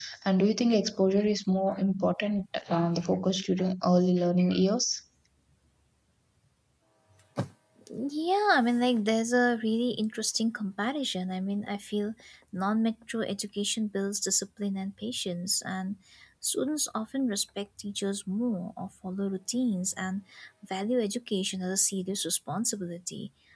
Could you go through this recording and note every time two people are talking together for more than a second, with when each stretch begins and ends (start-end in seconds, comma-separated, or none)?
none